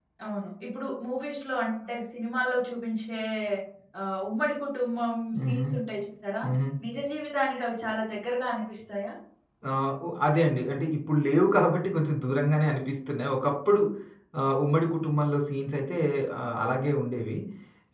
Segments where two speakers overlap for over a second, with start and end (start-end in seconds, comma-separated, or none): none